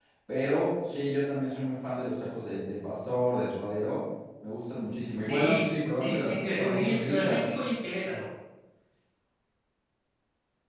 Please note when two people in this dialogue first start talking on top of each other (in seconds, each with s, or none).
5.2 s